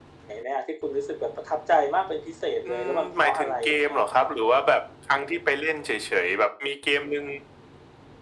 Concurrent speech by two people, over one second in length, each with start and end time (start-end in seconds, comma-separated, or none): 2.6-4.3